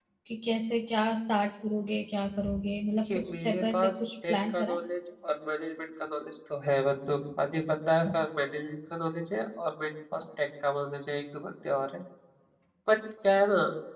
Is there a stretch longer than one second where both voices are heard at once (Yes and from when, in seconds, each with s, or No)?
Yes, from 2.9 s